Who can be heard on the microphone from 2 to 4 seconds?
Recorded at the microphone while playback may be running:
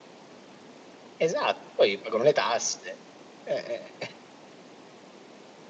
user only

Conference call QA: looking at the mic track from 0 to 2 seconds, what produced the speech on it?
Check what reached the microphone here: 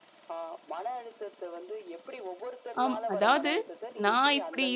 echo only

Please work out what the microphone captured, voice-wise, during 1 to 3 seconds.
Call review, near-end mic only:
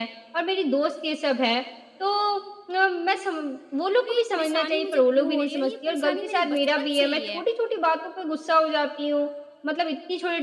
echo only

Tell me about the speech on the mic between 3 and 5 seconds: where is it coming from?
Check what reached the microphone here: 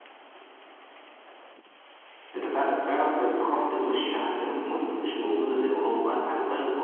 echo only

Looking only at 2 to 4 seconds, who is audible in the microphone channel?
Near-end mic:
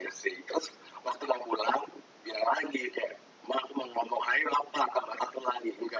echo only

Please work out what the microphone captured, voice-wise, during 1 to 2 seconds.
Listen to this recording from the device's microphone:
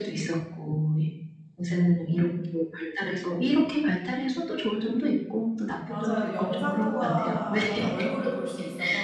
echo only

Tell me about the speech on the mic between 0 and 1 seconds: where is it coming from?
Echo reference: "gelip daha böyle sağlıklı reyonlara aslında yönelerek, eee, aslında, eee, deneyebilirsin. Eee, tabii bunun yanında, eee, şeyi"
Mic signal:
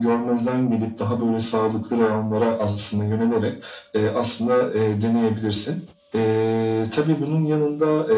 echo only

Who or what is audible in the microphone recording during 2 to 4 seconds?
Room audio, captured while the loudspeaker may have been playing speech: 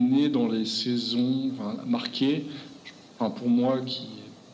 echo only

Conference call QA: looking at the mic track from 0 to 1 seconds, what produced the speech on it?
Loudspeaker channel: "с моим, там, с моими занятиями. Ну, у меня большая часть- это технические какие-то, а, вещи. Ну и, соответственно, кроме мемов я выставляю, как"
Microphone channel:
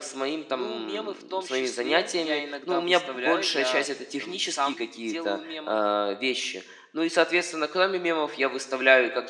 both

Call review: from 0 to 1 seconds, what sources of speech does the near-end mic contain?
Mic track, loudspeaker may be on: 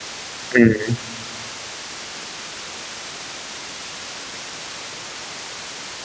user only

